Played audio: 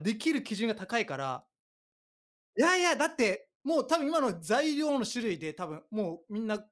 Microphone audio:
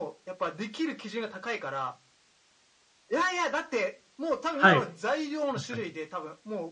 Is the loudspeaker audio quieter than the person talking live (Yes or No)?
Yes